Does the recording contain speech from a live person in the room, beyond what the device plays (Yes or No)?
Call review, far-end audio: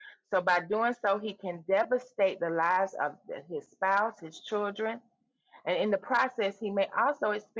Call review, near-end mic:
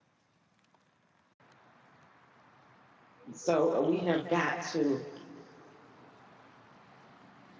Yes